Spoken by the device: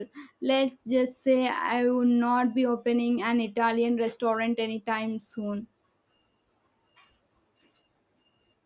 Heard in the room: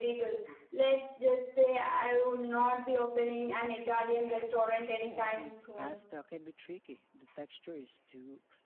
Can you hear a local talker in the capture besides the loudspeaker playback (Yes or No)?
Yes